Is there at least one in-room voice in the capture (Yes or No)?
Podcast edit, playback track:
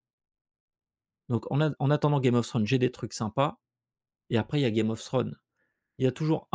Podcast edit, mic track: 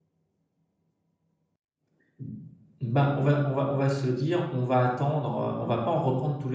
Yes